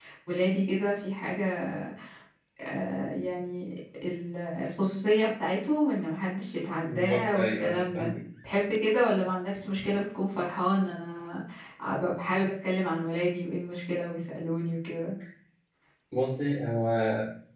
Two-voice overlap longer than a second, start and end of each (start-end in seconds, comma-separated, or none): 6.8-8.1